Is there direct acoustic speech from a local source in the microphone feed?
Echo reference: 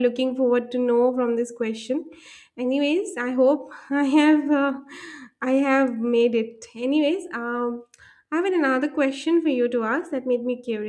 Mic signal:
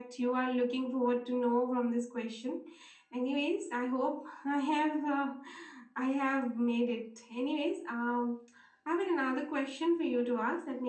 No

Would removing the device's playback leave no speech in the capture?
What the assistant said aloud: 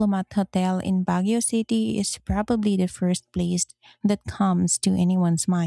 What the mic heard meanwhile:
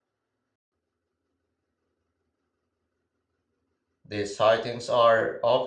No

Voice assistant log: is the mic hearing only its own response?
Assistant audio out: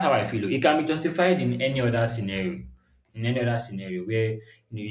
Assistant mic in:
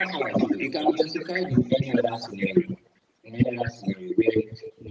Yes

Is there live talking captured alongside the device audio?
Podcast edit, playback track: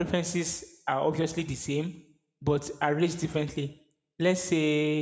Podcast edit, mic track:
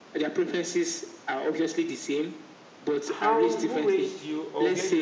Yes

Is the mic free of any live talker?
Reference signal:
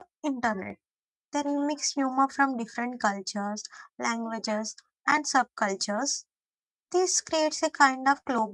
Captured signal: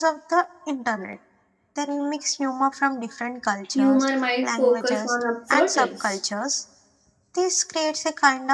No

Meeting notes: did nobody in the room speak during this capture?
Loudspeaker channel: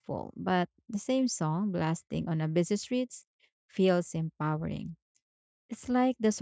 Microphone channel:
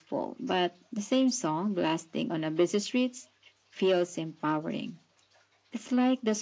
Yes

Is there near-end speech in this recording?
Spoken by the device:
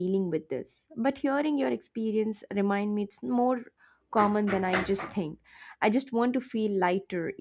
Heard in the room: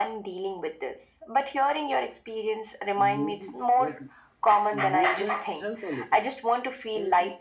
Yes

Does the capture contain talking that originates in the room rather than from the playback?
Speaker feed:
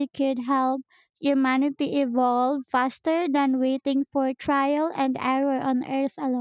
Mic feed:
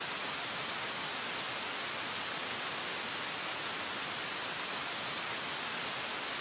No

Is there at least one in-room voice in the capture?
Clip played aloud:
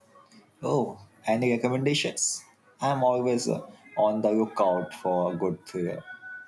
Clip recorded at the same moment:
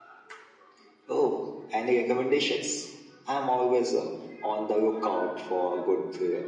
No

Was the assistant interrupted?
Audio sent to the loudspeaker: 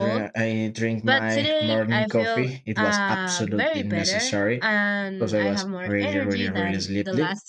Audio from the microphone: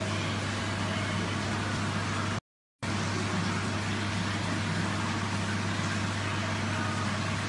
No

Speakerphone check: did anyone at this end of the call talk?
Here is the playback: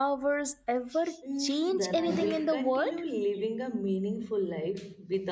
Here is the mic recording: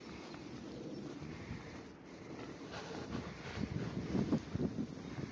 No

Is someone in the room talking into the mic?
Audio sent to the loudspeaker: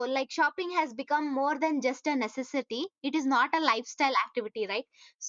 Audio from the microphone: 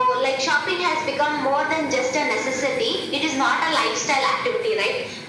No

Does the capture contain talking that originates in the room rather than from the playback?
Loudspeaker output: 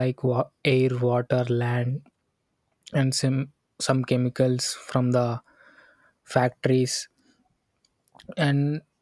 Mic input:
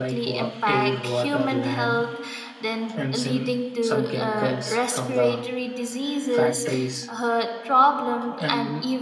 Yes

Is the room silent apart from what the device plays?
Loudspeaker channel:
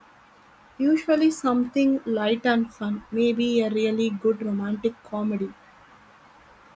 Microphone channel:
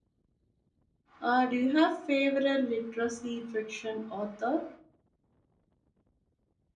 No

